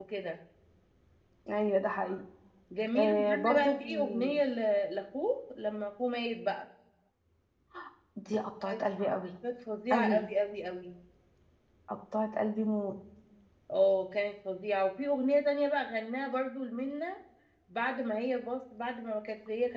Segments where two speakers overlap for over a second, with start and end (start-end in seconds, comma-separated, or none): 3.0-4.3